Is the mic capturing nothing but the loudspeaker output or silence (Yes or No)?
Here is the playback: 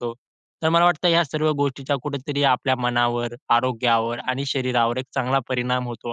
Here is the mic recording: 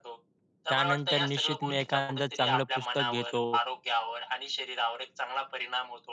No